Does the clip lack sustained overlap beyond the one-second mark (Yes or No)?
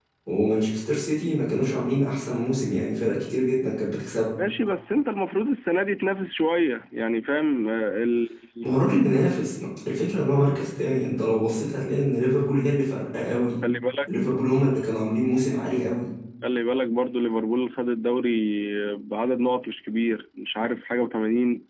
Yes